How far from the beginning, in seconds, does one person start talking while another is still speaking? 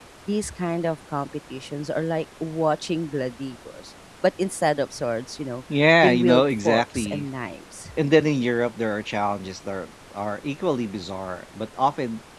6 s

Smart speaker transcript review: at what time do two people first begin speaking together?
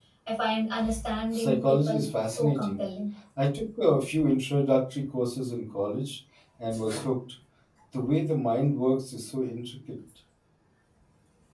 1 s

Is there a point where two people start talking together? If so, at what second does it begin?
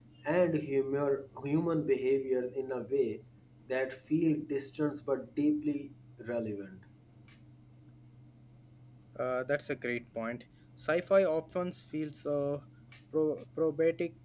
none

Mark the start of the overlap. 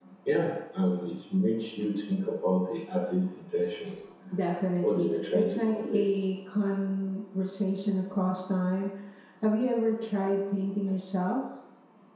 5 s

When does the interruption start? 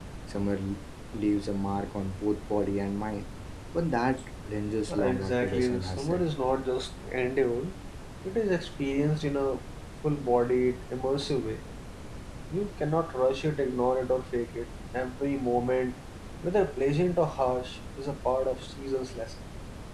5 s

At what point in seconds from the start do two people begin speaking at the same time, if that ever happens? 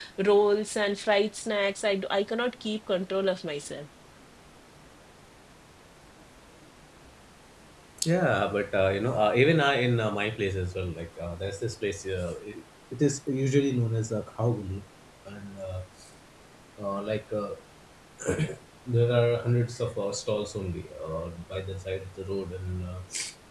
none

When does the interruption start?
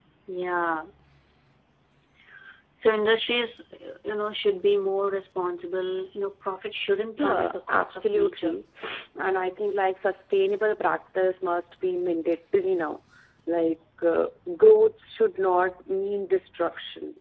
7 s

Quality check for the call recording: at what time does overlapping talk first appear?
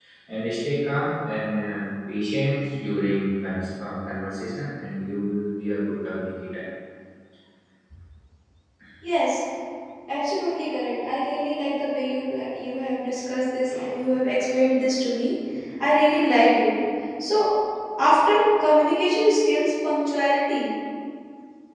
none

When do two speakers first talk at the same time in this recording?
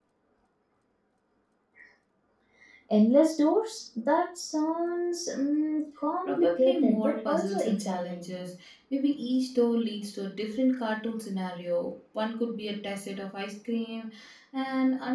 6 s

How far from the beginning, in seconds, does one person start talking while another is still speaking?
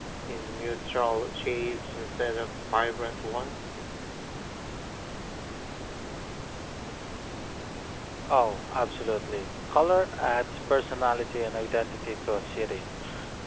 none

